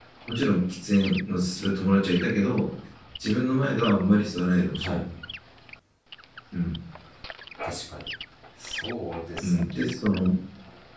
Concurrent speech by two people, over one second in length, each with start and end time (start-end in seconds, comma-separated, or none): none